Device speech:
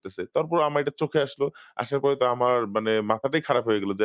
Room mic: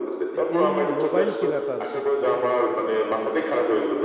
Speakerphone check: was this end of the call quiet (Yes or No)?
No